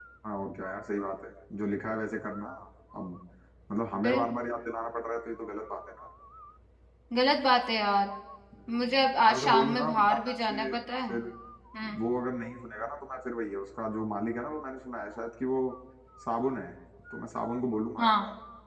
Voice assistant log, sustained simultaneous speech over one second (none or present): present